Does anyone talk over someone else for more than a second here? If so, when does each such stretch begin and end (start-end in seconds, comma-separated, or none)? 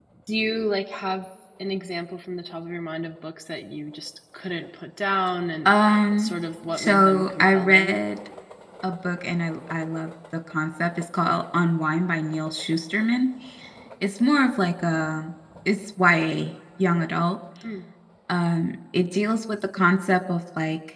6.8-8.0